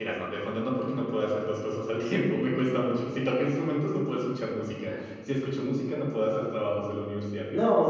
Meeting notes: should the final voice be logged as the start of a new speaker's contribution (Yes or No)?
Yes